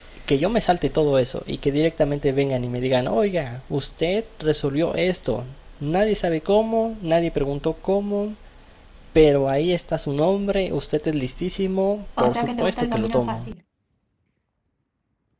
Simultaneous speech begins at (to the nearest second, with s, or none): 12 s